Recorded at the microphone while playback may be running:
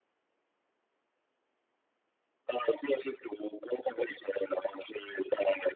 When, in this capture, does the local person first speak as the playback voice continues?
none

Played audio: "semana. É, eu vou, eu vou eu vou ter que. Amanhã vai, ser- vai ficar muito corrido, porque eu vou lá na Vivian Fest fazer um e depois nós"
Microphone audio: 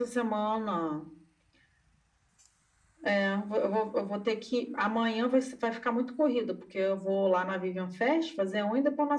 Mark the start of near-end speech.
none

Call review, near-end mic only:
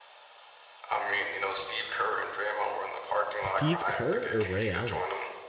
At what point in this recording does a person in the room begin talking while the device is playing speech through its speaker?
3 s

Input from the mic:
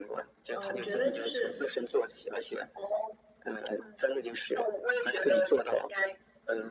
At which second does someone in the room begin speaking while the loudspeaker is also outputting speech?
1 s

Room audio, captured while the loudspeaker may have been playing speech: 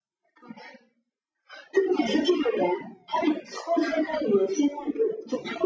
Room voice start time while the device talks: none

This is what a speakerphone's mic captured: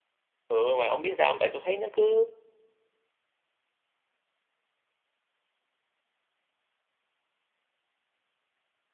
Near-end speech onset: 0 s

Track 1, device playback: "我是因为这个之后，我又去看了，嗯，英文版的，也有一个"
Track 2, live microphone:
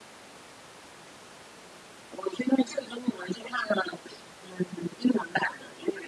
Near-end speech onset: none

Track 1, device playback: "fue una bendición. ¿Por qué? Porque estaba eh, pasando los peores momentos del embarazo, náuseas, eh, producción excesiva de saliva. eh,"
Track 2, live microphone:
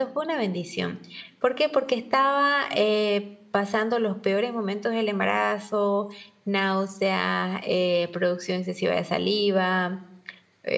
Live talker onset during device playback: none

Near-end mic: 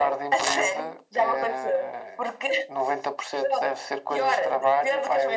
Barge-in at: none

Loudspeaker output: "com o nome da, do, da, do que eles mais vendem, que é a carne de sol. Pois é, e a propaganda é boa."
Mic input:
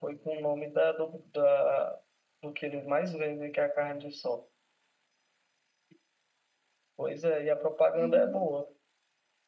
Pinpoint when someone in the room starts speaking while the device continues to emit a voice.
8 s

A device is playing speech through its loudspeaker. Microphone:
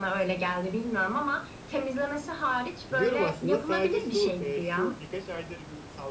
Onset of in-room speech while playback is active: 3 s

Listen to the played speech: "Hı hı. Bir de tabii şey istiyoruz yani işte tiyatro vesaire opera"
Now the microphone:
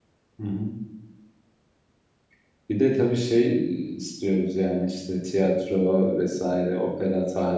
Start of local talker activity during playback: none

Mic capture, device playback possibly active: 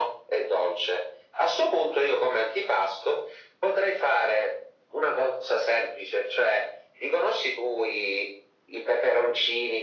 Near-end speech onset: none

